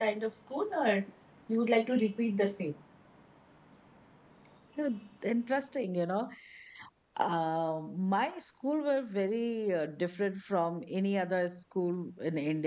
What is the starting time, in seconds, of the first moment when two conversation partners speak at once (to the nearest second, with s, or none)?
none